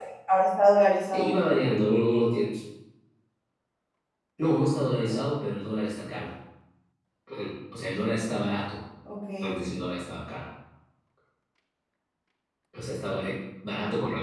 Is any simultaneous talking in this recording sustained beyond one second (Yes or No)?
No